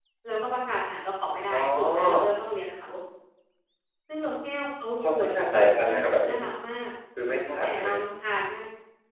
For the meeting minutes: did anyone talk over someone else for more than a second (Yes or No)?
Yes